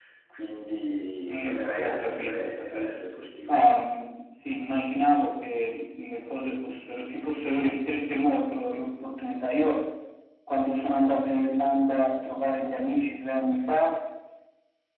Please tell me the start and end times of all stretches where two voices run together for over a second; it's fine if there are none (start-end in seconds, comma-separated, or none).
1.3-2.9